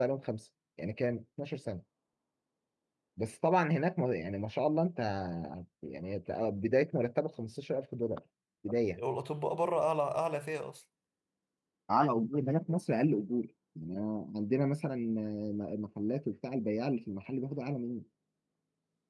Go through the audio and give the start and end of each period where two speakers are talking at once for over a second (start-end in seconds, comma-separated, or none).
none